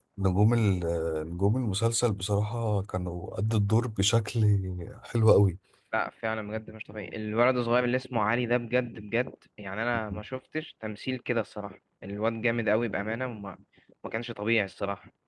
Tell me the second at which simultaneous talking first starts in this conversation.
none

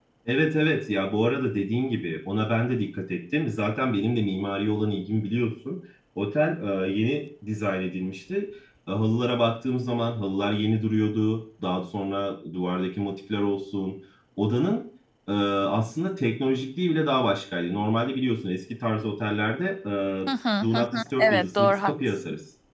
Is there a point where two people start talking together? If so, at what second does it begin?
20.6 s

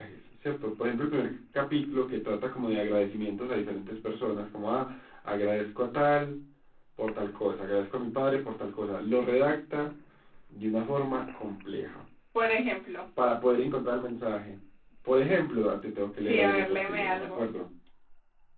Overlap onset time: 16.2 s

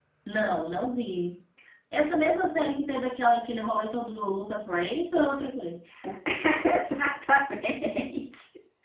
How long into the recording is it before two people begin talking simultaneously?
none

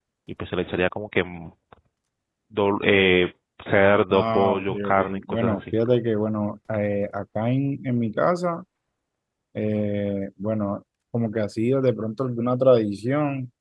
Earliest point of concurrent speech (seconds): 4.1 s

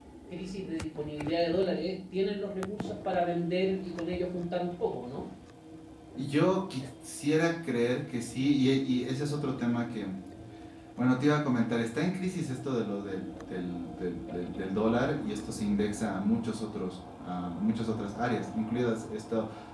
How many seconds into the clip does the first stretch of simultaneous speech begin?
none

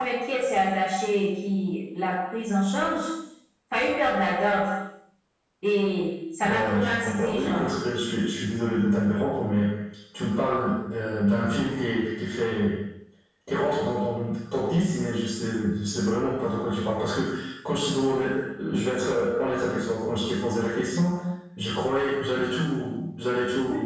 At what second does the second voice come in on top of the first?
6.4 s

